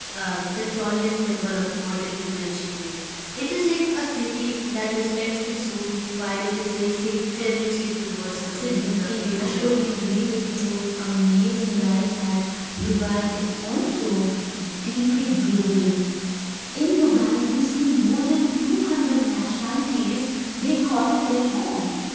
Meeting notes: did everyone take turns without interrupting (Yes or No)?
No